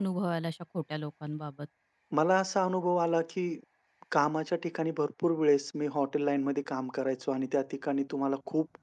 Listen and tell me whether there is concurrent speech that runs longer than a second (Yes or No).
No